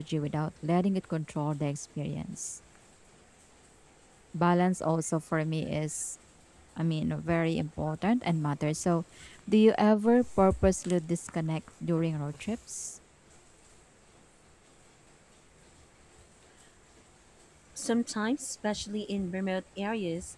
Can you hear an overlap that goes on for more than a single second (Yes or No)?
No